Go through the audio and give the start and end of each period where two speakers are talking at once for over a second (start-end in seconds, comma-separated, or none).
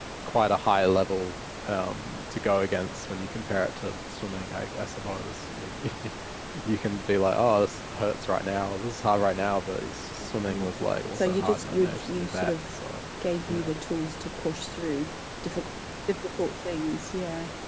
11.1-12.6